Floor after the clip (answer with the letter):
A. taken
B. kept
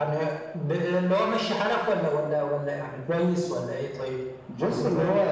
A